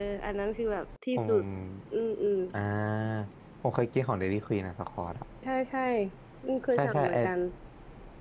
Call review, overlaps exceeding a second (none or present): none